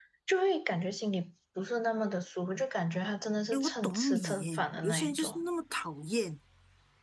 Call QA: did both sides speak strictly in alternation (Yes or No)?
No